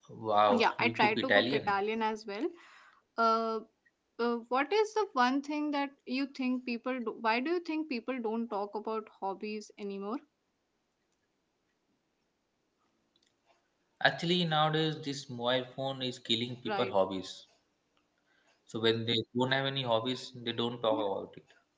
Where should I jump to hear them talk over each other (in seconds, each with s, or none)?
0.5 s